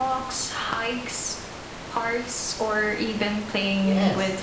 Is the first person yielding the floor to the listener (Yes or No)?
Yes